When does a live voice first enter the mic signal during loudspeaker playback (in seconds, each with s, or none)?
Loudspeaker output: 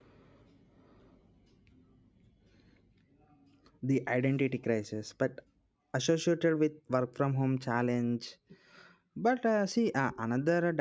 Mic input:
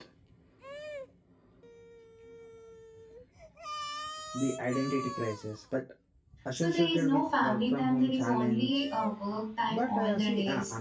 6.5 s